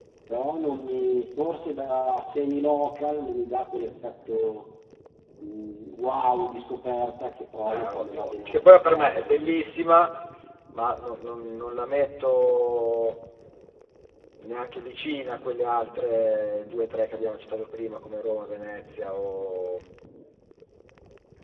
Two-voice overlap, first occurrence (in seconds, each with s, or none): 7.7 s